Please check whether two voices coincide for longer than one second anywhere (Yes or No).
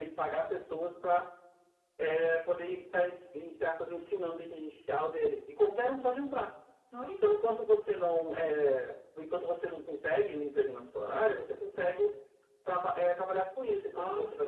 No